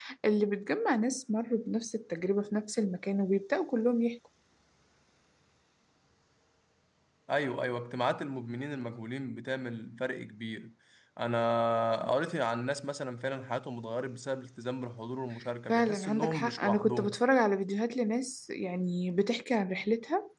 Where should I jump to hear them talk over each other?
15.7 s

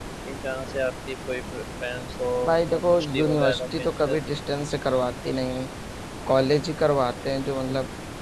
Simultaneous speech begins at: 2.7 s

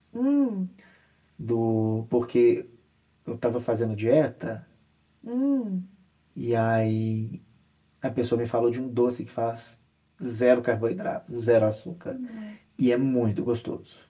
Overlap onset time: none

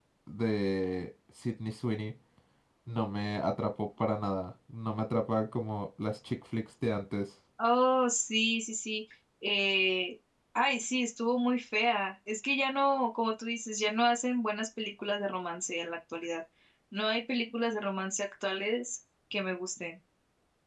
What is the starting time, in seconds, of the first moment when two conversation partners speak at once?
none

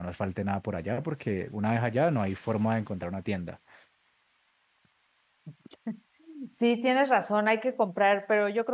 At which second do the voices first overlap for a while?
none

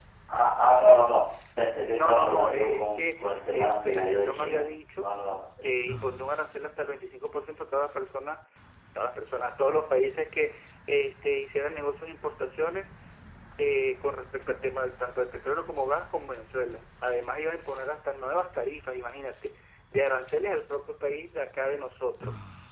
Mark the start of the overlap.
1.9 s

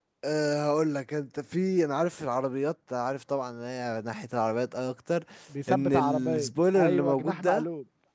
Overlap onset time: 5.7 s

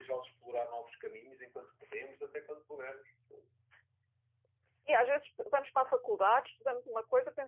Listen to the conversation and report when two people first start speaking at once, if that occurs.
none

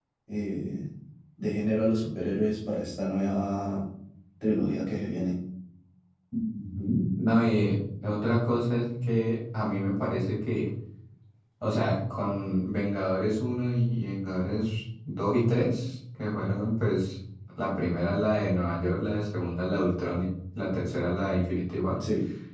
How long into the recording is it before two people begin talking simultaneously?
none

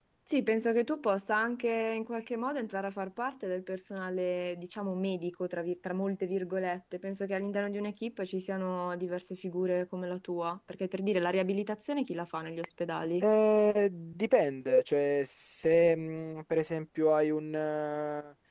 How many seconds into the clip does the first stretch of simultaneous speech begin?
none

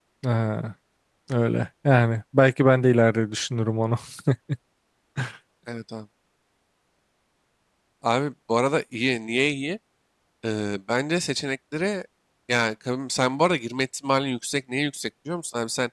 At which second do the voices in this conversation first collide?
none

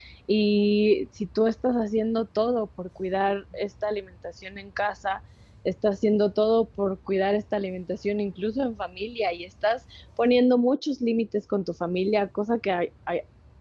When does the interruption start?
none

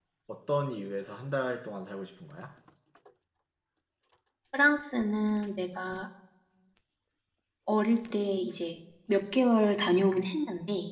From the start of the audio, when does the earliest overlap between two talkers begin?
none

